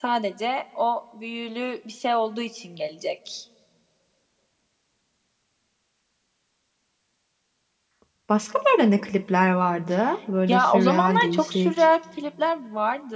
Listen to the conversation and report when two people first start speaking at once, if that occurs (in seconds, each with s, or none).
10.5 s